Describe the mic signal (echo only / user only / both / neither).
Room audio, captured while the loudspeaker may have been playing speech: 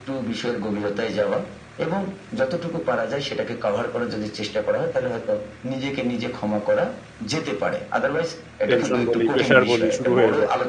both